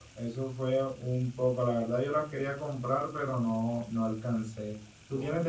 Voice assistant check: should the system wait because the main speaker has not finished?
Yes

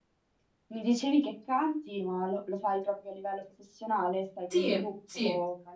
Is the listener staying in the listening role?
No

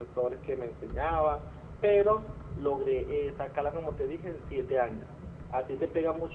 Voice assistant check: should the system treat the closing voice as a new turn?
No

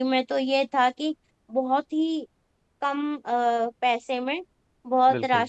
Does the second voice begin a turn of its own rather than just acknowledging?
No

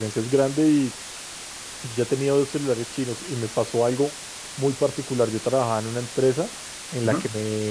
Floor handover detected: No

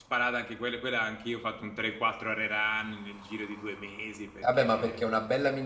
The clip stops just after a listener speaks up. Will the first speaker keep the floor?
No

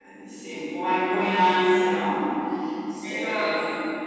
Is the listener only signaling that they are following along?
No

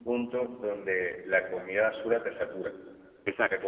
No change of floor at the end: Yes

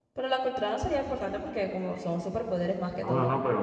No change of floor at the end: No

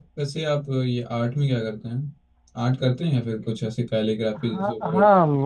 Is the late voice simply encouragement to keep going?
No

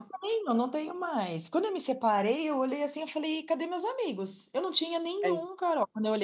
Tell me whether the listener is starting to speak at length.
No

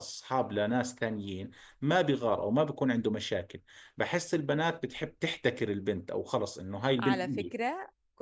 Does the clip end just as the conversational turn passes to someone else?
Yes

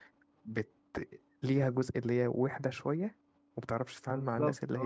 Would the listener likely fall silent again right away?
No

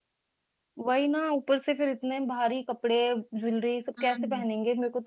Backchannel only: Yes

